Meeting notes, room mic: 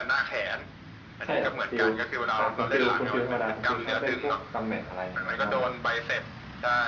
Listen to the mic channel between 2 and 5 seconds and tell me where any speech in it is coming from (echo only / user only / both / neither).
both